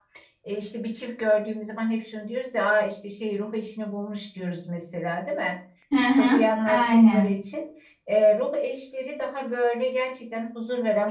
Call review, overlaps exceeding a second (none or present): present